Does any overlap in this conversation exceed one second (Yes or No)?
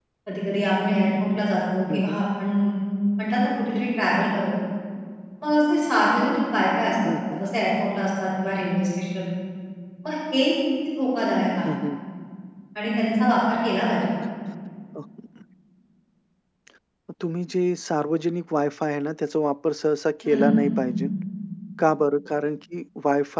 No